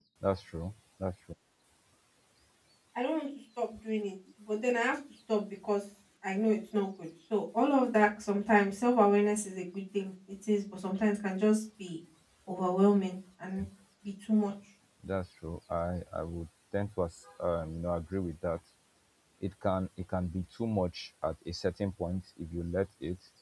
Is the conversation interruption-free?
Yes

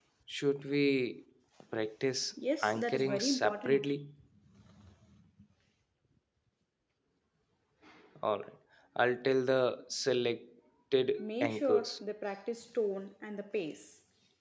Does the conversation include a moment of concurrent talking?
Yes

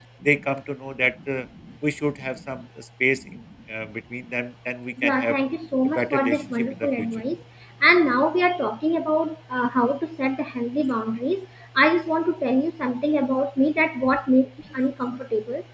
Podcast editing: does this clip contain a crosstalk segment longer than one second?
Yes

